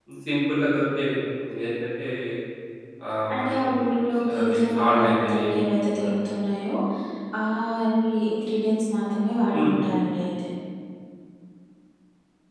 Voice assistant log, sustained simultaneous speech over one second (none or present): present